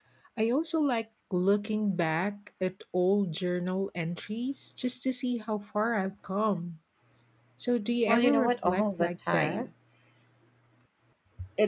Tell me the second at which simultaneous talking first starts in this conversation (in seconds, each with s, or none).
8.1 s